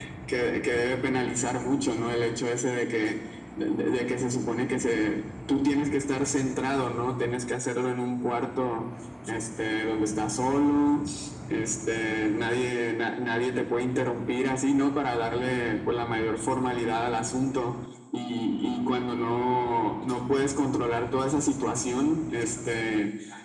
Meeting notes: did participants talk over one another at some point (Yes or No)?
No